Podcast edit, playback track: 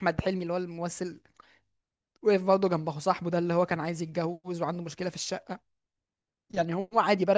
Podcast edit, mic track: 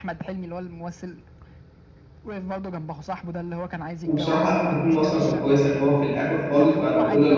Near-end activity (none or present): present